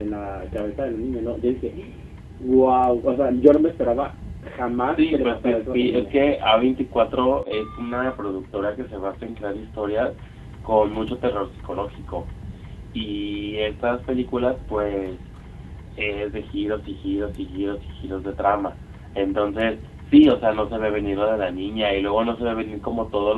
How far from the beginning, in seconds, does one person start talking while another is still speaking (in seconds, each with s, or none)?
4.8 s